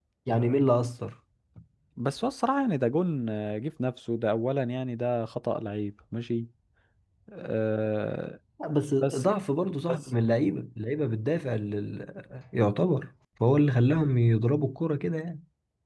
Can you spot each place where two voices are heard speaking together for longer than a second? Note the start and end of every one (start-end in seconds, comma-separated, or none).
none